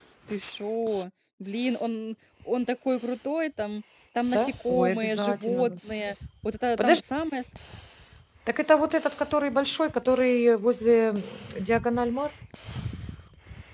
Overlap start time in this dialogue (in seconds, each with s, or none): 4.3 s